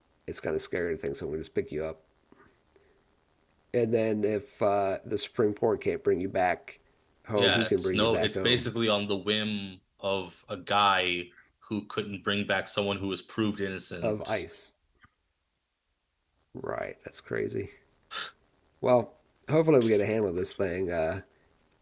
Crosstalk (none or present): present